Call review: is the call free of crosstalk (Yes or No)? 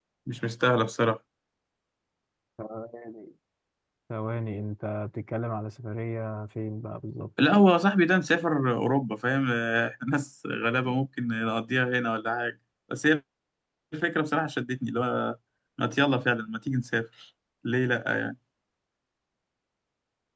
Yes